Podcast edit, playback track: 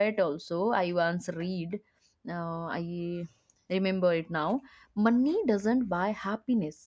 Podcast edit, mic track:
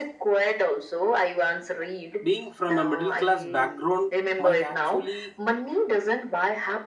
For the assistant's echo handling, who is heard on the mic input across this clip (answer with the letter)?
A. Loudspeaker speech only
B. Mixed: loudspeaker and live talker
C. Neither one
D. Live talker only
B